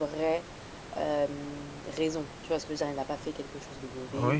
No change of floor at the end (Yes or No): No